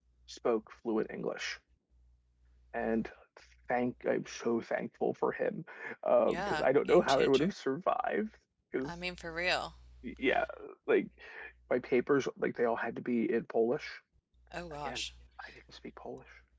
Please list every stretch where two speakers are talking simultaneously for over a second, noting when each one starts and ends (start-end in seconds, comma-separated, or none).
6.3-7.5